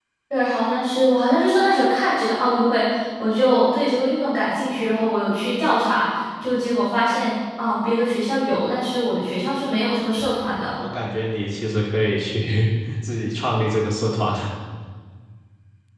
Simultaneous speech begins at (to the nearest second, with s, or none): none